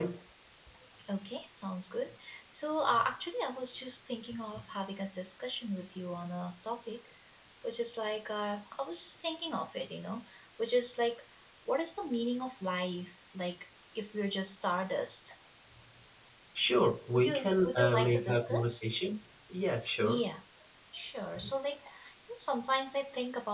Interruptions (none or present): present